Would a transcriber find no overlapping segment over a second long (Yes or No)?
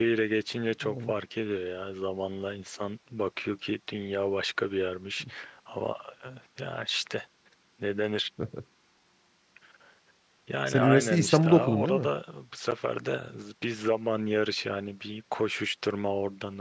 No